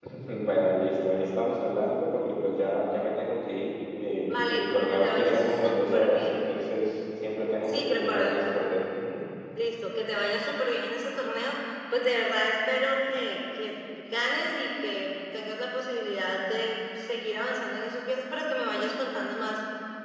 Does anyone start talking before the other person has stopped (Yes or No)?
Yes